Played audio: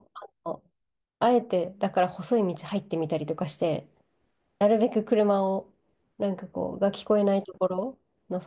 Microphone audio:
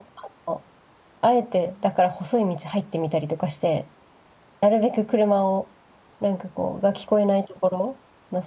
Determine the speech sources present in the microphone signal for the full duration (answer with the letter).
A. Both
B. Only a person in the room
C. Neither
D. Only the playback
D